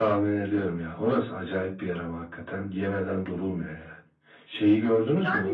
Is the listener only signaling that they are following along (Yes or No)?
No